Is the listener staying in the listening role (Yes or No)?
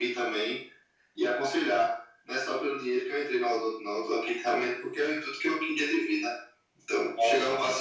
Yes